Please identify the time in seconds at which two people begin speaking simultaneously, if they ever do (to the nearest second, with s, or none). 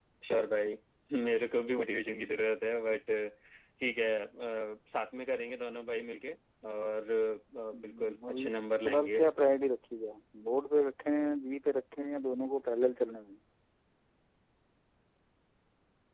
8 s